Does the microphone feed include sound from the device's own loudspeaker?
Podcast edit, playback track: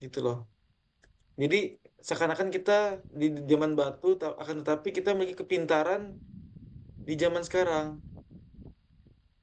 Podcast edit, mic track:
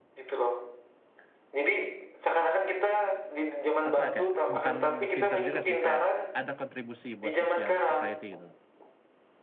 Yes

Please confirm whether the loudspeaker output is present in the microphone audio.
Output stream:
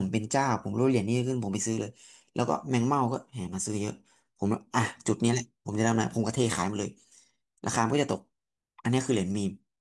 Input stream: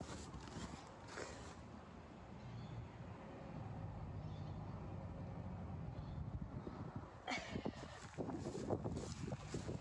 No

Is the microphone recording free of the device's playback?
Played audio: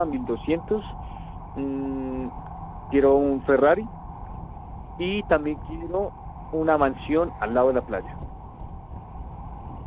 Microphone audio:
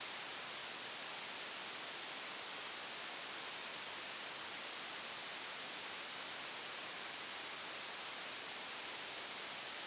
Yes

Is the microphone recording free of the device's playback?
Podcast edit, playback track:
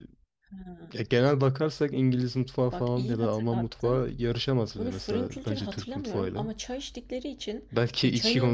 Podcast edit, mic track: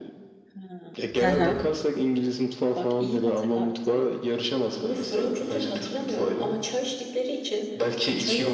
No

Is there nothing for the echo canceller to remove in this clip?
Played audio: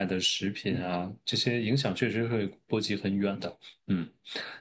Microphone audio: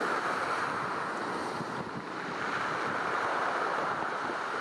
Yes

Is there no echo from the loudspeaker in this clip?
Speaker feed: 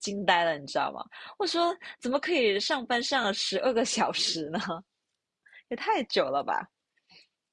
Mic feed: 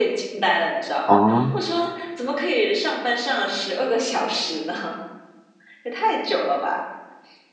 No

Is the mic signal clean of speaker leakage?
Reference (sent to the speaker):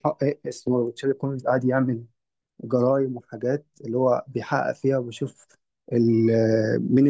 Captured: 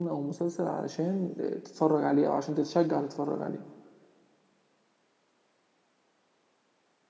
Yes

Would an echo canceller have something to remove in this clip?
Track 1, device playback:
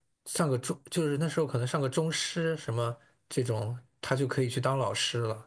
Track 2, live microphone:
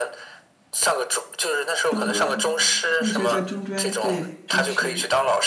Yes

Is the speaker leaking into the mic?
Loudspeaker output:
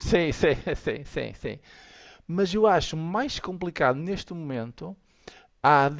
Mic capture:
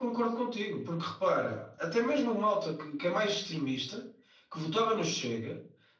No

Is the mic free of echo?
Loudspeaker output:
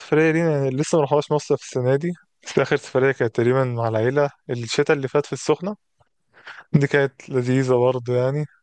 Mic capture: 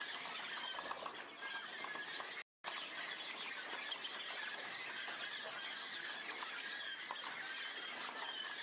Yes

